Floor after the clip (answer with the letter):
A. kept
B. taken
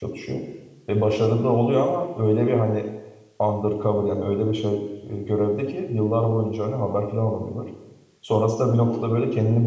A